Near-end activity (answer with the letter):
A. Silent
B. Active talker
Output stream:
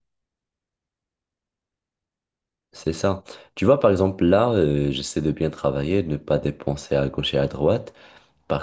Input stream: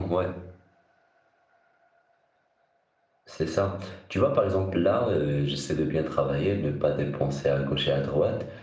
A